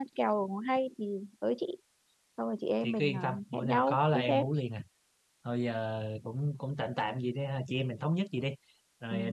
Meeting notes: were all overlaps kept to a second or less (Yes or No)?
No